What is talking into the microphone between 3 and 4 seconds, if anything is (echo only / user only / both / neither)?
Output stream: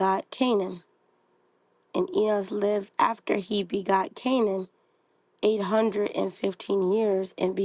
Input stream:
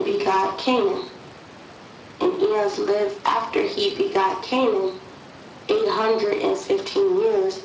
echo only